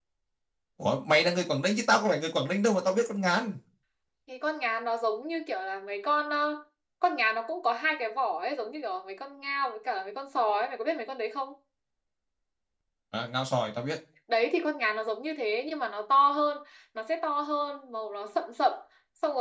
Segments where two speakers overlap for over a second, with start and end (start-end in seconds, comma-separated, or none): none